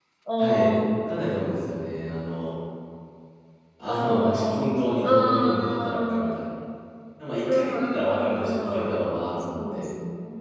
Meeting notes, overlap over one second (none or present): present